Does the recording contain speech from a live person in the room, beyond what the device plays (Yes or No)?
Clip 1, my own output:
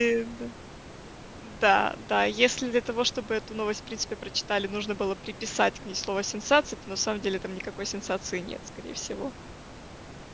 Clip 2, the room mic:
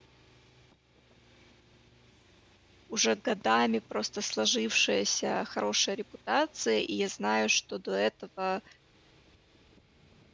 Yes